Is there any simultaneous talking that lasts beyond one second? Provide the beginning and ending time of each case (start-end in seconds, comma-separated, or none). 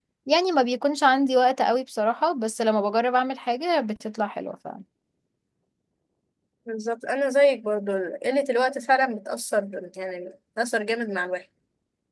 none